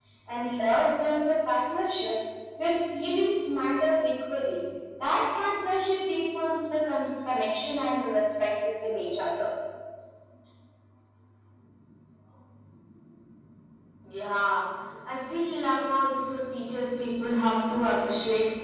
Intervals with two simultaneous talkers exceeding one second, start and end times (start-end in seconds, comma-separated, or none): none